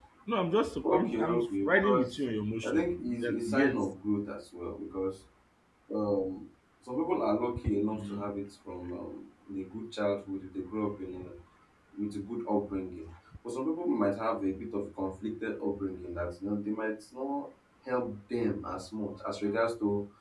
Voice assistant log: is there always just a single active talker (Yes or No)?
No